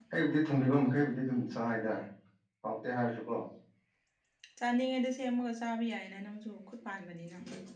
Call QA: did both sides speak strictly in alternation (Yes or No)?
Yes